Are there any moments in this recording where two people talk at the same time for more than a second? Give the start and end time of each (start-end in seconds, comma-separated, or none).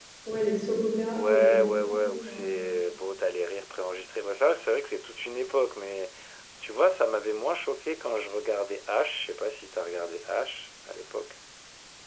1.2-2.7